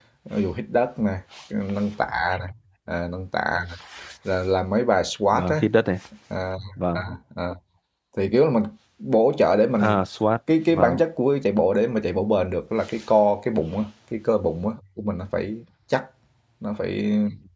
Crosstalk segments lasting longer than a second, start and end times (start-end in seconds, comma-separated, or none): none